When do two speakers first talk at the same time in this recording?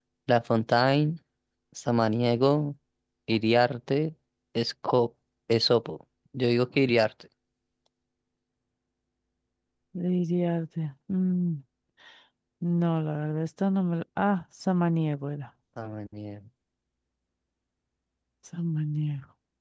none

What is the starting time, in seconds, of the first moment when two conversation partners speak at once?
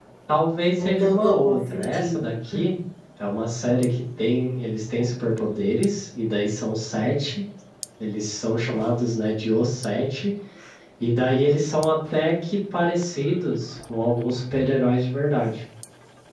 0.8 s

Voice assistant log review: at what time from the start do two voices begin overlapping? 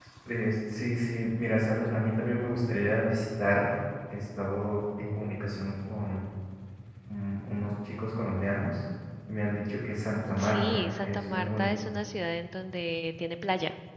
10.3 s

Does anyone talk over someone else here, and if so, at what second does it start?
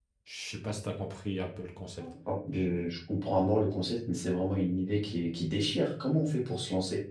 none

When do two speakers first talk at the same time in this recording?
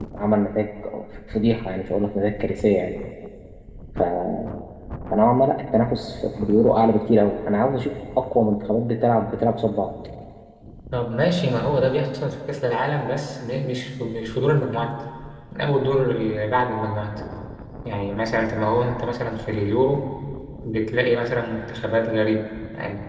none

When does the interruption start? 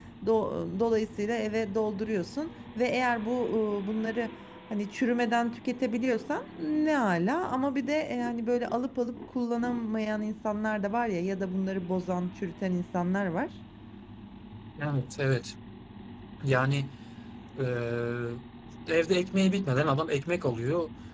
none

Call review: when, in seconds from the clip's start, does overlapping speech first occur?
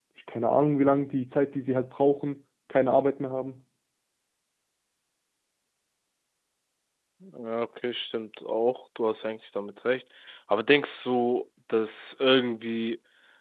none

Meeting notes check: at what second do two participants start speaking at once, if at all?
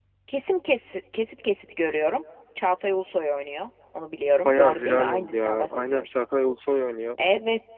4.5 s

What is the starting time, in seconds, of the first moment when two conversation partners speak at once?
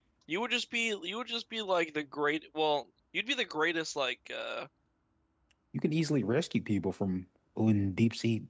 none

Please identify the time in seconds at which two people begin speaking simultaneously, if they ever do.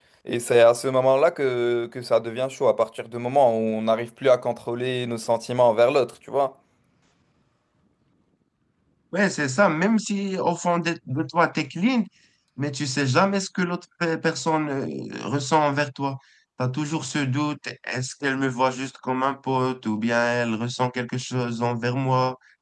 none

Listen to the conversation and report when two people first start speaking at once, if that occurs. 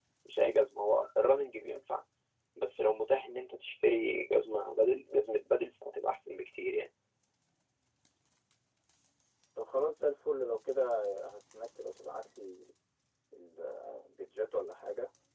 none

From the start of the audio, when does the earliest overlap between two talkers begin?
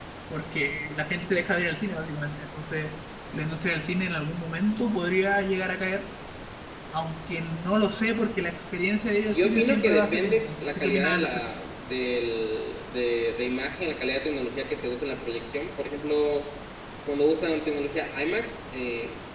9.3 s

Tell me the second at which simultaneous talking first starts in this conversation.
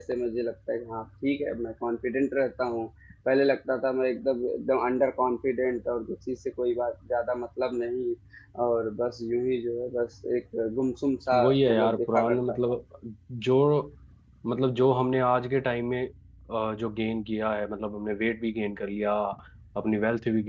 11.3 s

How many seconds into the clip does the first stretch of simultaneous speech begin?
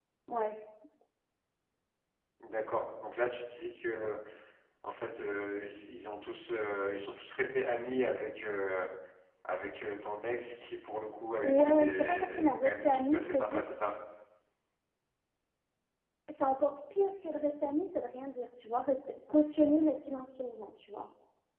11.4 s

